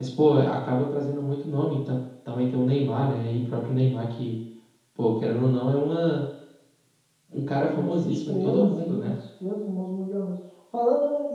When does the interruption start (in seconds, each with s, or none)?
7.7 s